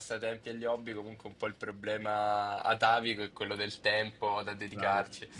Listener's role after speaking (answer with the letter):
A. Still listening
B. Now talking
B